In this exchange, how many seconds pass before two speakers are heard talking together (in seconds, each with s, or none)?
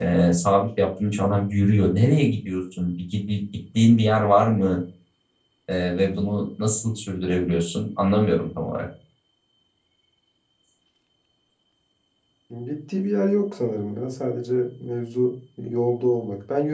none